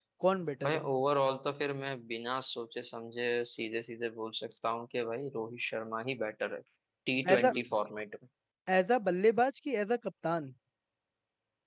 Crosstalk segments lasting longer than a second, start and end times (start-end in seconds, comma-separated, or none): none